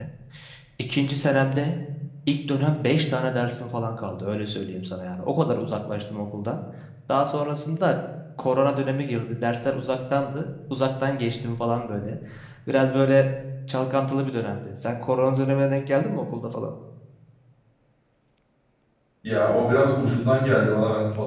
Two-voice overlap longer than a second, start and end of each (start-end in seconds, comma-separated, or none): none